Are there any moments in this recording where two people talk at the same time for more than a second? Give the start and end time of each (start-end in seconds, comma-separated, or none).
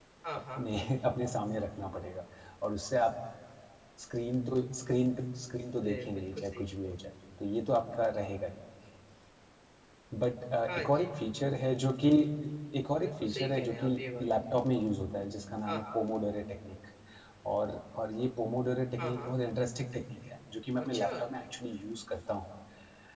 5.8-7.0, 13.0-14.3